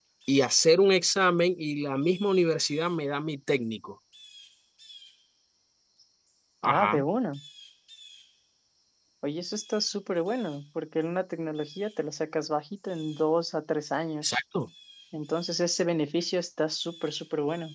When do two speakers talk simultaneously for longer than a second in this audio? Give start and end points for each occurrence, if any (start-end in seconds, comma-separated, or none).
none